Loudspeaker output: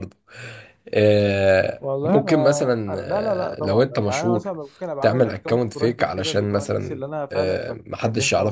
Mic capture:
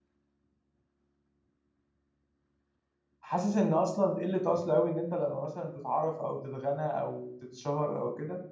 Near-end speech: present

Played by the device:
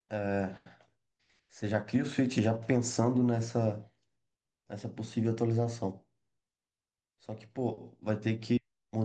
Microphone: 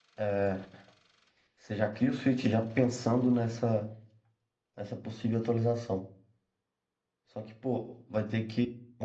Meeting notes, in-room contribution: none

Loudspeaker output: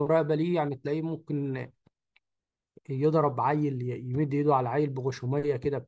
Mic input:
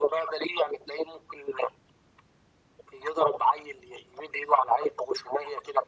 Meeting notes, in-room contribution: none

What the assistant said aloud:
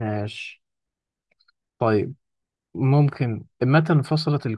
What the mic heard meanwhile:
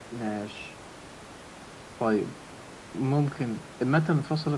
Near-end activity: none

